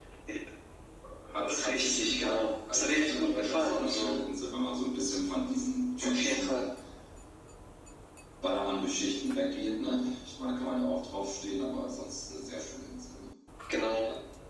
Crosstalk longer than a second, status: present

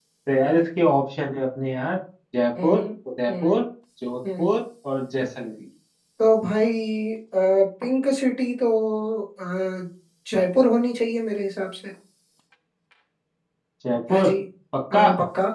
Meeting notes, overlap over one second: none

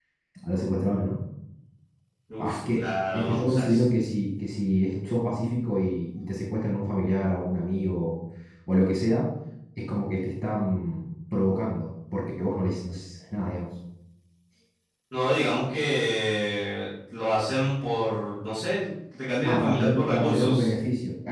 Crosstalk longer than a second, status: present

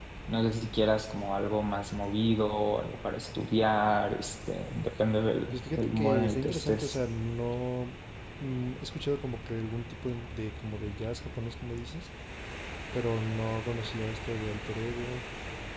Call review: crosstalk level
present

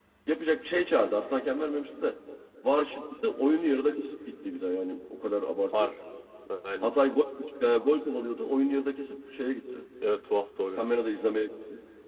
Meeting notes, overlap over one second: none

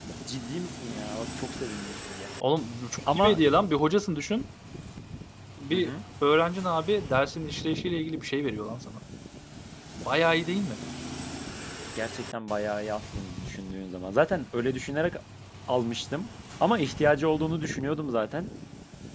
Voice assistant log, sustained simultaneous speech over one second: none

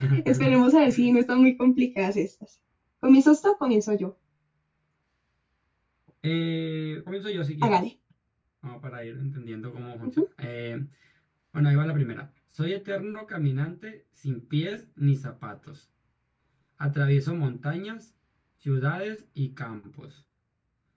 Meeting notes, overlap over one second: none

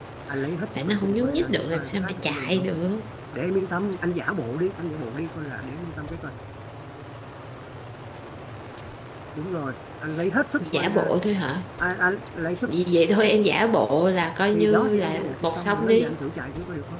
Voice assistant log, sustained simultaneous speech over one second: present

